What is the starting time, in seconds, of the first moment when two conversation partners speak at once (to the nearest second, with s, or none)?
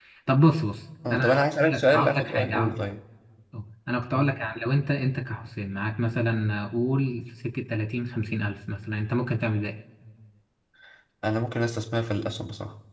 1 s